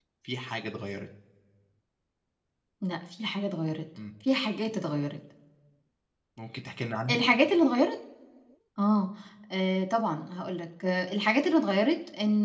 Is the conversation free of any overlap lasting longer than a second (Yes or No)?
Yes